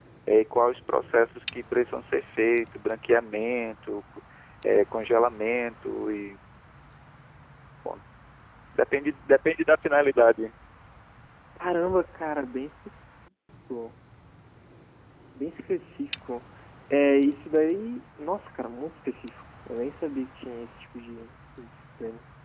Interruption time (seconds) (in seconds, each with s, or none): none